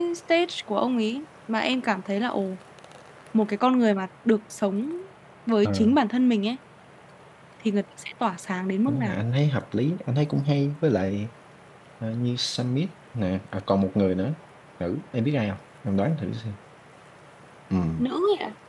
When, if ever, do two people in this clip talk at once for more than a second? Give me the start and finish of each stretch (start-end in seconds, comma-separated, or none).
none